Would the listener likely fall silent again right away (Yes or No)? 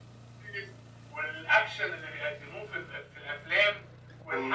Yes